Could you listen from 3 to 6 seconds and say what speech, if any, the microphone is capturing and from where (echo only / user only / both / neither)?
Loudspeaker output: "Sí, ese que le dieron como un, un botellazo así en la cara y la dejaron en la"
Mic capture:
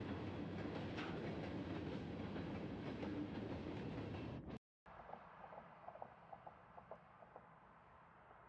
neither